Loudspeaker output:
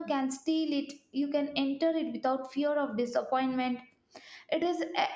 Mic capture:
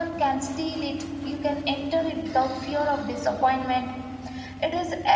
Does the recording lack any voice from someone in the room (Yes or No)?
Yes